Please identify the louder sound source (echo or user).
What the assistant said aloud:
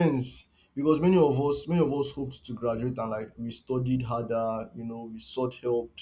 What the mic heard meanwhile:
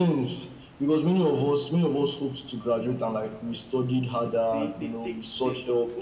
echo